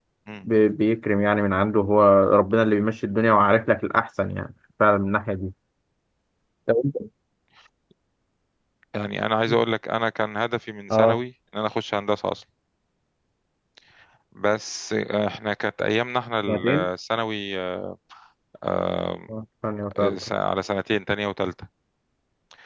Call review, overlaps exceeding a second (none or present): none